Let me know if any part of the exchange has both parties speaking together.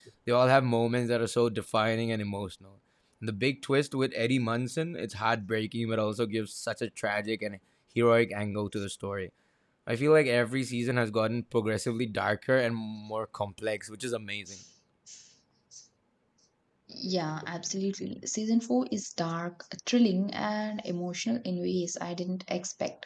No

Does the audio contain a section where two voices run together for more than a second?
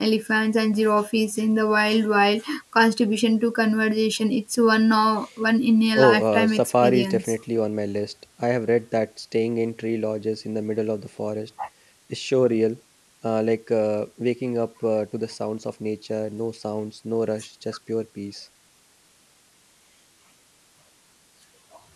Yes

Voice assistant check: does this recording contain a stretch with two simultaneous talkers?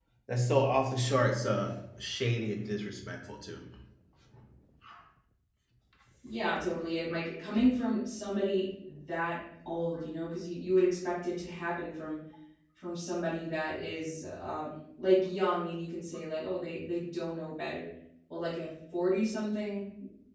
No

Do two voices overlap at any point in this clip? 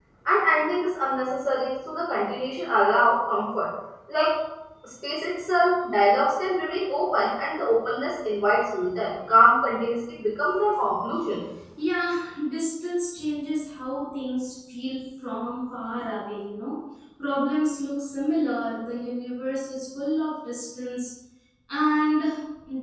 No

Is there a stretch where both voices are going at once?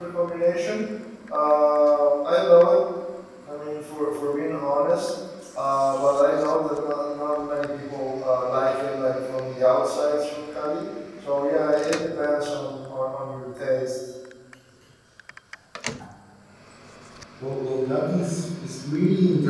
No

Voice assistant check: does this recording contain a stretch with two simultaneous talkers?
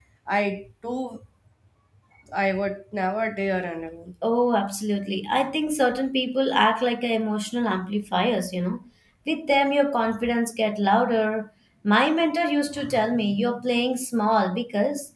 No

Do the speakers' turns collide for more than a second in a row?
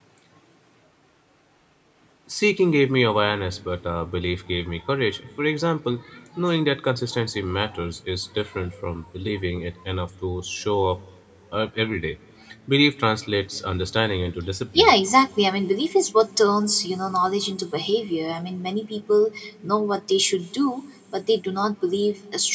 No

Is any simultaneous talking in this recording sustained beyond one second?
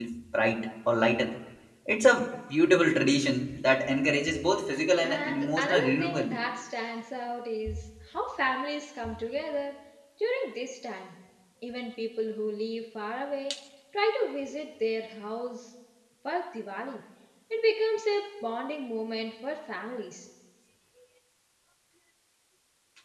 Yes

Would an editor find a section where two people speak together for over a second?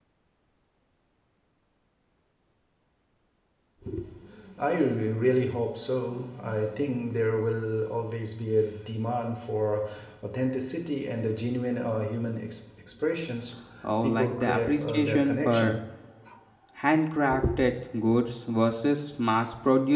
Yes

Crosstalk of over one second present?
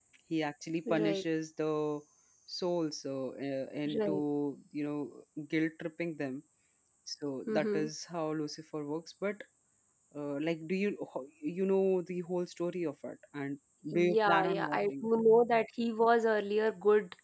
Yes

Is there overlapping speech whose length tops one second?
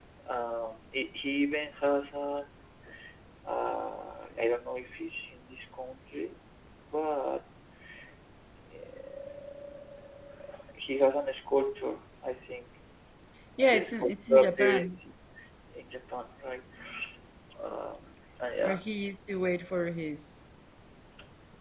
Yes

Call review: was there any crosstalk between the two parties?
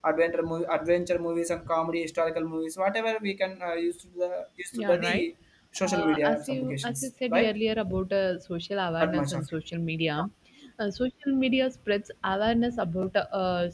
Yes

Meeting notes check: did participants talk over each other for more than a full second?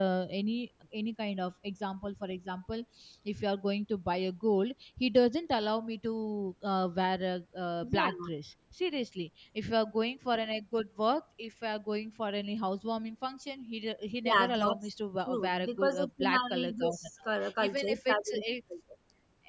Yes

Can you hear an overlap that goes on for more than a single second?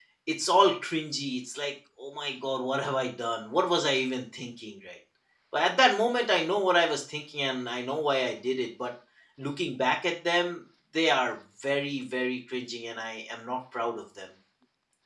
No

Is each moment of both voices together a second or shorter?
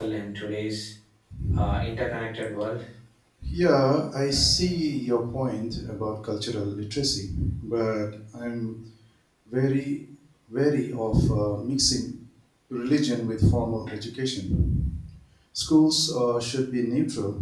Yes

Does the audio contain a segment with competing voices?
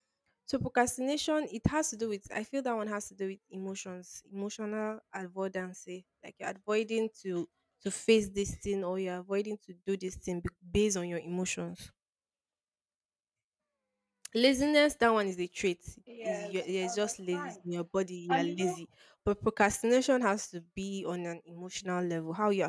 Yes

